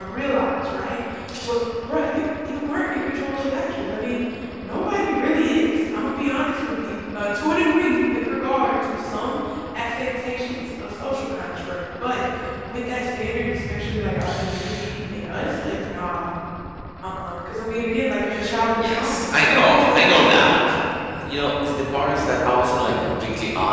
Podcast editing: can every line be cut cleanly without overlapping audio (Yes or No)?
No